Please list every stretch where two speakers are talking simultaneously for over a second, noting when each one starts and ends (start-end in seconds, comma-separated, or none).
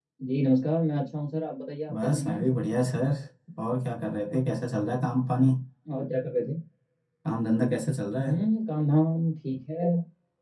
none